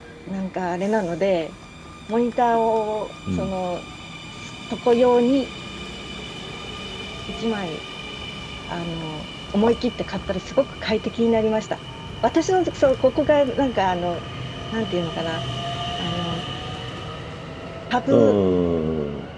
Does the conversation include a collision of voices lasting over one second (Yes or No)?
No